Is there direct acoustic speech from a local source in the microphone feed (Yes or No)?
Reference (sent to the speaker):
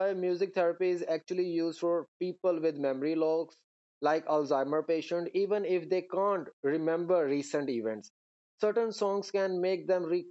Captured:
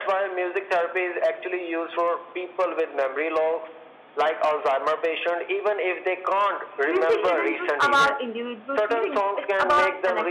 Yes